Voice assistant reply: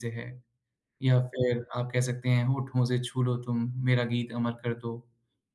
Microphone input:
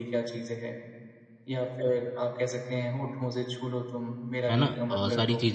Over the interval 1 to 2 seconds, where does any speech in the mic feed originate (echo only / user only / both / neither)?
echo only